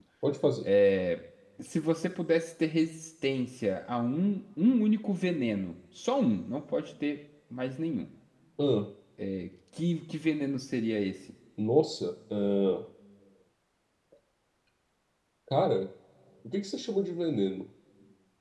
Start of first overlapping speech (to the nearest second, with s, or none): none